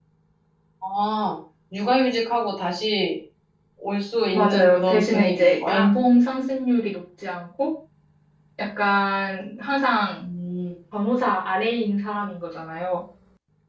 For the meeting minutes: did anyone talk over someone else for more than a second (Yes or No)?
Yes